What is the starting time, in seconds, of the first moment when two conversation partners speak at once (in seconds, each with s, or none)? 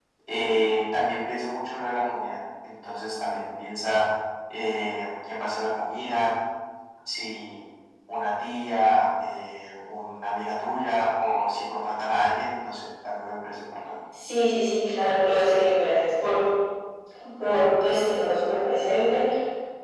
none